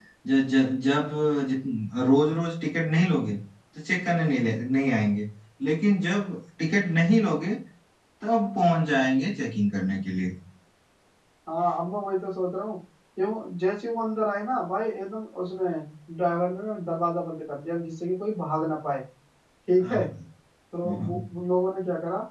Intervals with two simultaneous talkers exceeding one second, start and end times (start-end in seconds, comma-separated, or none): none